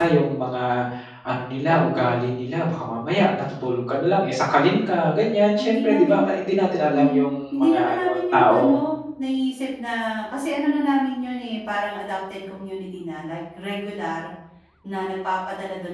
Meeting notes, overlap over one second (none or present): present